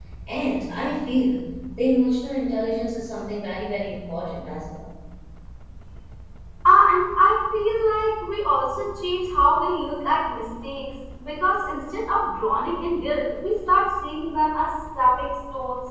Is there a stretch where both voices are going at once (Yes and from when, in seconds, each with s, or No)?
No